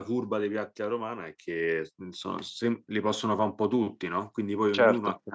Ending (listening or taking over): listening